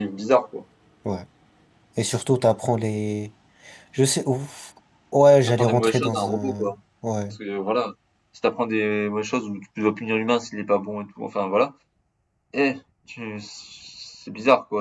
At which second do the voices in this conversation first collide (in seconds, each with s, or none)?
5.5 s